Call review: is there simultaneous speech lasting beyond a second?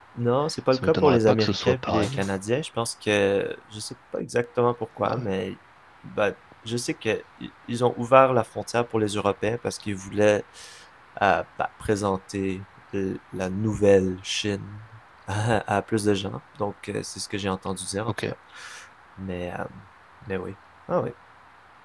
Yes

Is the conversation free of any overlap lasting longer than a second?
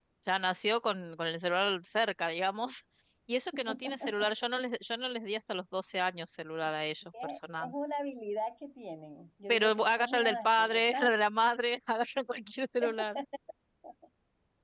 No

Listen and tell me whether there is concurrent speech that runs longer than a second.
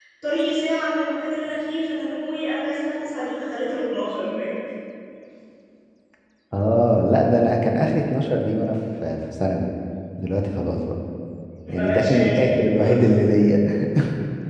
Yes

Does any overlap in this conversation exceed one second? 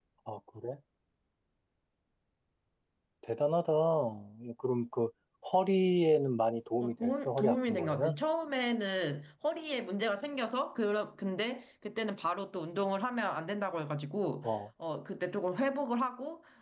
Yes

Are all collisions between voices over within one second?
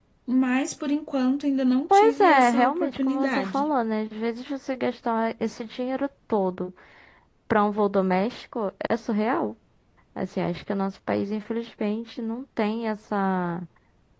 No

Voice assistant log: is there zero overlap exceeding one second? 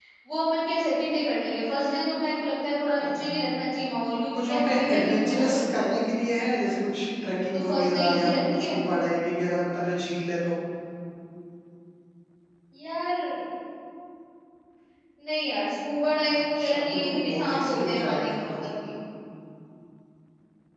No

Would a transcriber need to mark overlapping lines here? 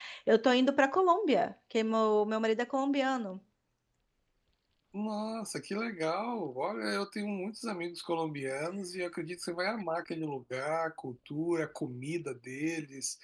No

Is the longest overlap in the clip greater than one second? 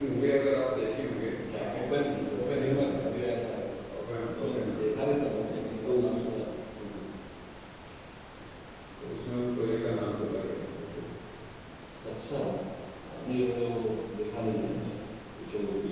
Yes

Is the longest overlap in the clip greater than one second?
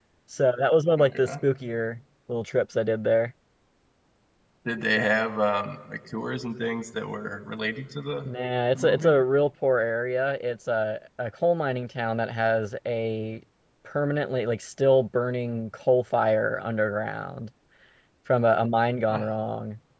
No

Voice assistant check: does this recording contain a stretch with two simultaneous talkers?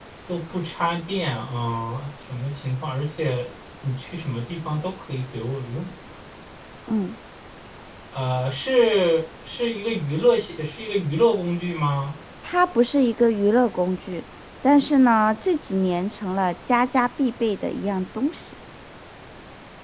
No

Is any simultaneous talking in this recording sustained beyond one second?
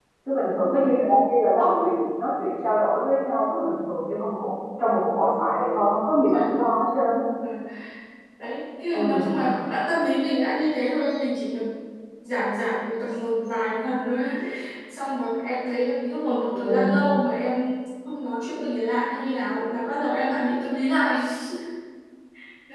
No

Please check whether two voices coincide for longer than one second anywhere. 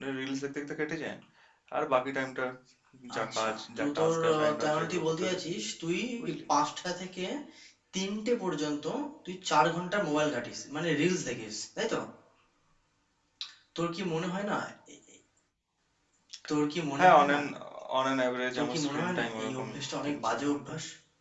Yes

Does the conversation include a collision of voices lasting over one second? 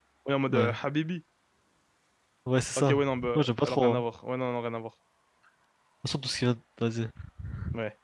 Yes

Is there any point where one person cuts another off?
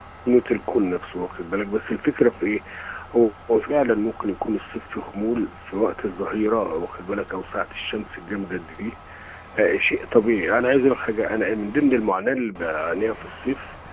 No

